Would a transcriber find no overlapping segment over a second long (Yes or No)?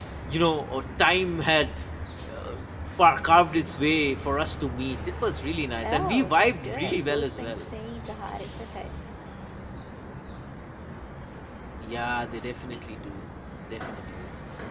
No